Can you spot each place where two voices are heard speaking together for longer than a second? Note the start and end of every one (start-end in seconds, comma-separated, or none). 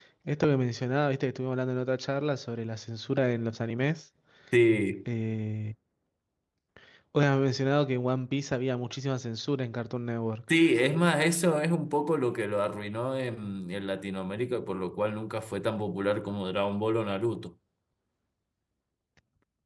none